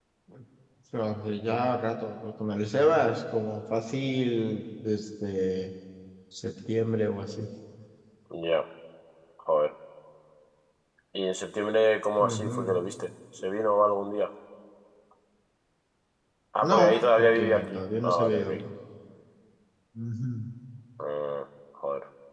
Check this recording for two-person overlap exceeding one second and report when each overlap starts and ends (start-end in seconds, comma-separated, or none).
16.6-18.5